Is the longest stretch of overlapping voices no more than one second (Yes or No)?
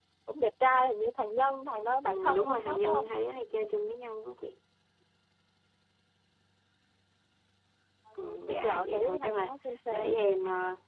No